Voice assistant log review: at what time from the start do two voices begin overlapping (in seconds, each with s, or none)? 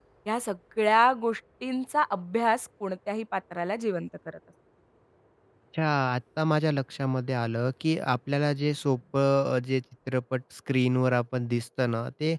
none